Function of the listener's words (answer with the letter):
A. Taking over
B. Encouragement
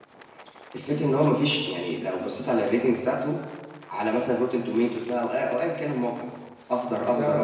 B